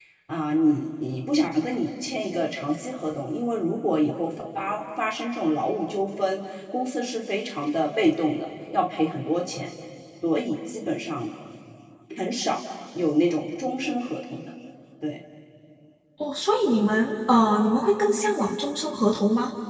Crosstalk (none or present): none